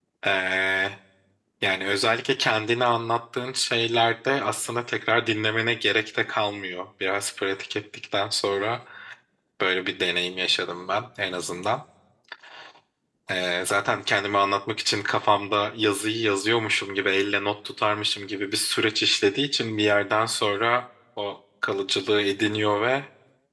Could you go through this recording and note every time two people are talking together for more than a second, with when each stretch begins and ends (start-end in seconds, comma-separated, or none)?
none